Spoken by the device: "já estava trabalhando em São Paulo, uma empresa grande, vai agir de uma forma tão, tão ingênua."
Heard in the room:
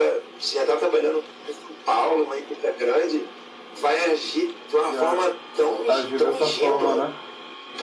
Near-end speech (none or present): present